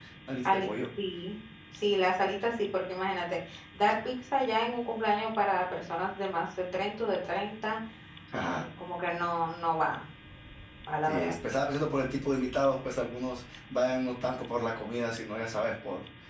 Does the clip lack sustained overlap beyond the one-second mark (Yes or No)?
Yes